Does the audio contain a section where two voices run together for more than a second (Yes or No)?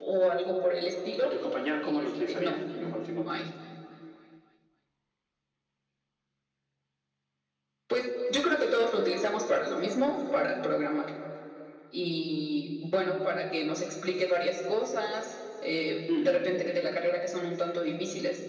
Yes